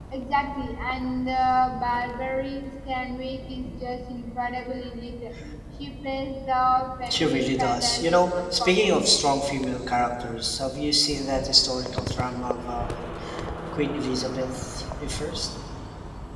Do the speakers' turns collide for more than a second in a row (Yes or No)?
Yes